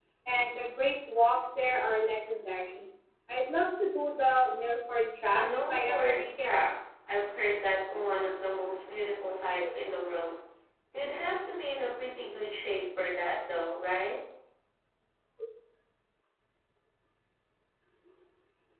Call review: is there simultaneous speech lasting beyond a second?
Yes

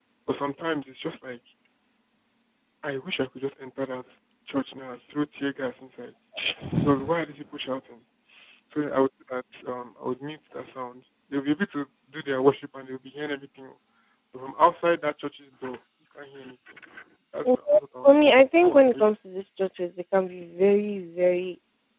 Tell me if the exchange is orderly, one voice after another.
No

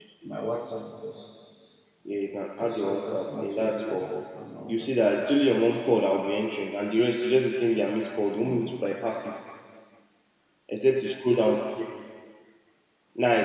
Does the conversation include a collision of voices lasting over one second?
Yes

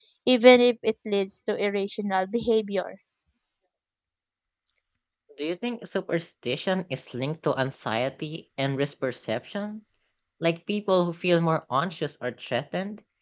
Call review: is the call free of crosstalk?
Yes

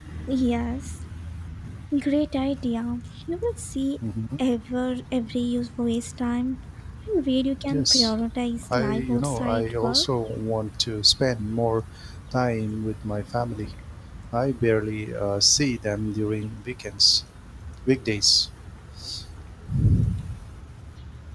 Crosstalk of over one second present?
Yes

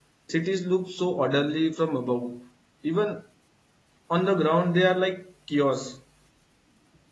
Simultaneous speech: No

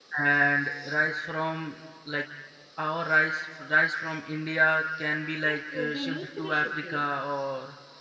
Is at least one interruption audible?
Yes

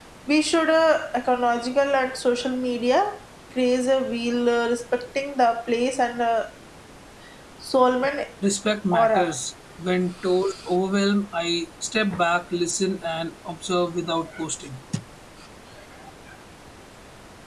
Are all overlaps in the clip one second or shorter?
Yes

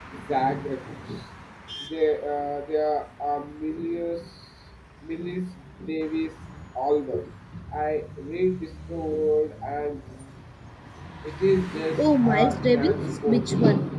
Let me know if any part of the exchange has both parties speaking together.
Yes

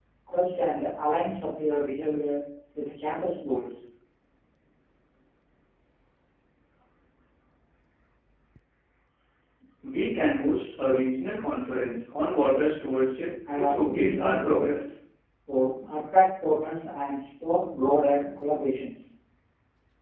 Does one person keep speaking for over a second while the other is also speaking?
Yes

